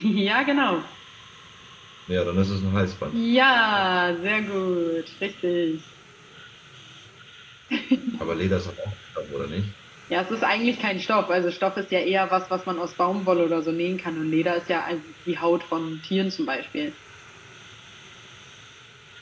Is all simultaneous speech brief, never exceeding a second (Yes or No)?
Yes